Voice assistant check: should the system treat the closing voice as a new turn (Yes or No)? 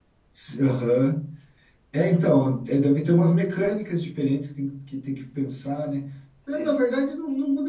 No